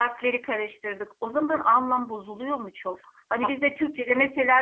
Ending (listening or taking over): listening